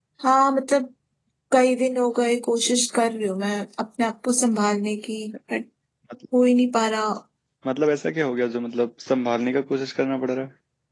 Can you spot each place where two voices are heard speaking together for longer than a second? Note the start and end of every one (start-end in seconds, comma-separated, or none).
none